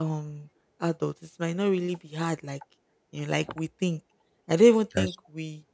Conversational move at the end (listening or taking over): listening